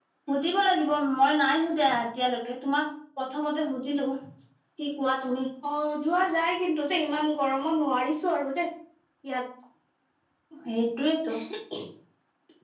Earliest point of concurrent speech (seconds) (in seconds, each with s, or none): none